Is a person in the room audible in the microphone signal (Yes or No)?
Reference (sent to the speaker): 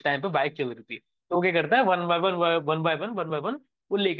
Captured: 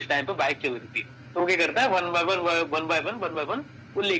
No